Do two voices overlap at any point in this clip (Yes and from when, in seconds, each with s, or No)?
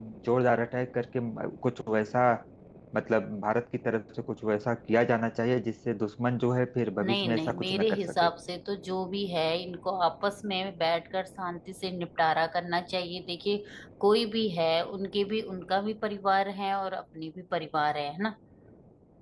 Yes, from 7.0 s